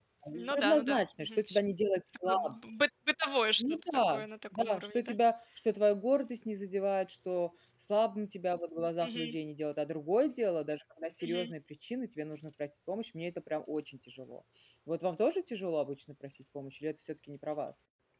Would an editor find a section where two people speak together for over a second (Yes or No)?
Yes